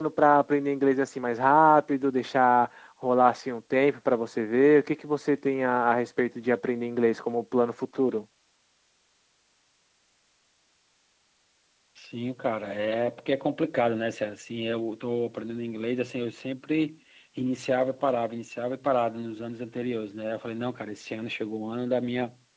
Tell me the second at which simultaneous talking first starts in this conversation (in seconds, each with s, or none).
none